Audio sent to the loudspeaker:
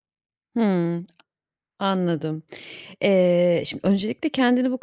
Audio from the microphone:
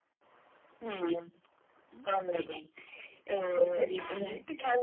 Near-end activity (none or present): present